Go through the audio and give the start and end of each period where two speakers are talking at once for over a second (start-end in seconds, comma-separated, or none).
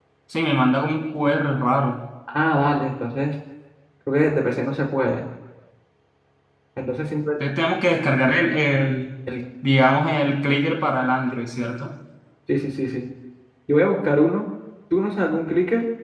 none